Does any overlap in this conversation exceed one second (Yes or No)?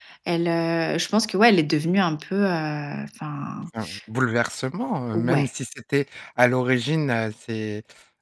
No